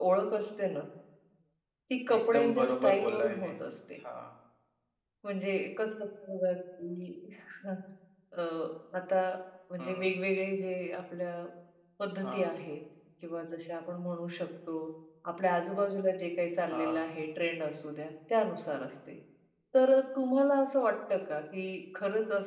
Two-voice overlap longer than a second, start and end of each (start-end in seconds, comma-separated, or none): 2.1-3.5